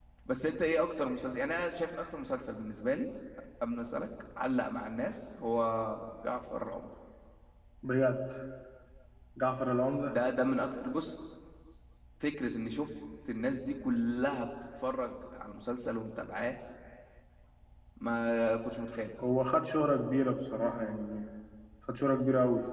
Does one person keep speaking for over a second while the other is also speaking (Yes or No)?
No